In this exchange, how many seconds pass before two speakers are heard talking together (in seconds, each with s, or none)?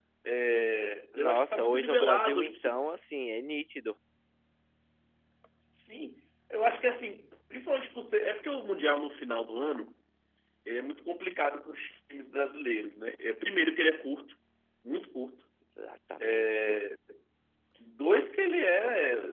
1.1 s